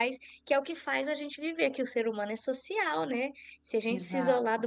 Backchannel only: Yes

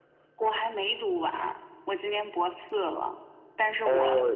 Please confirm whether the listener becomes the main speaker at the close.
No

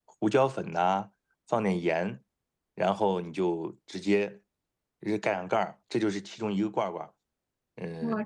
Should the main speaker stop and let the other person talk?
Yes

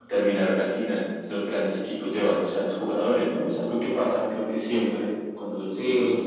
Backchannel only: No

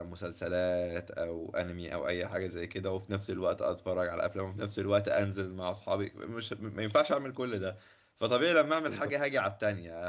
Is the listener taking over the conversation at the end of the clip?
No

